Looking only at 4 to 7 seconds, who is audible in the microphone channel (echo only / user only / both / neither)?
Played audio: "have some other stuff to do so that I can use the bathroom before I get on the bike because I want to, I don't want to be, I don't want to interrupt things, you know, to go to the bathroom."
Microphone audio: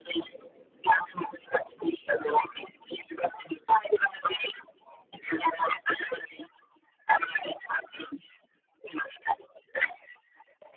echo only